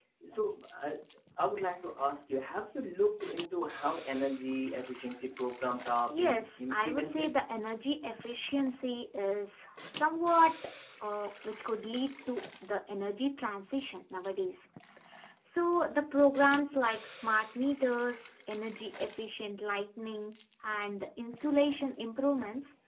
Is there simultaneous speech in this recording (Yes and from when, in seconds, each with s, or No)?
Yes, from 6.1 s